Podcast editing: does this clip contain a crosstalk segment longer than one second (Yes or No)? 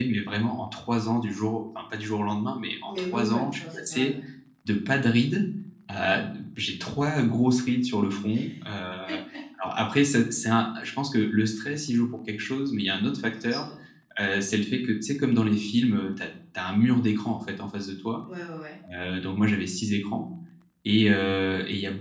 Yes